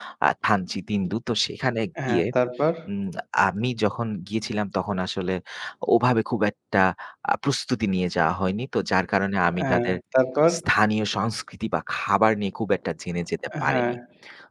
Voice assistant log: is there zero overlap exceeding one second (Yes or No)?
Yes